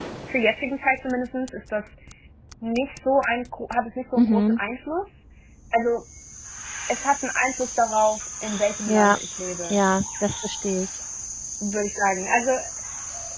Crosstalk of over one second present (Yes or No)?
No